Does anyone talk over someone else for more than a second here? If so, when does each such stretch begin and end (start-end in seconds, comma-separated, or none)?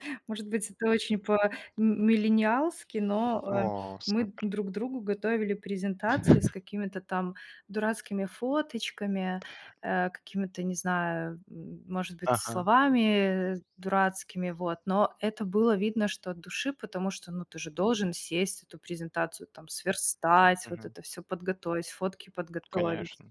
none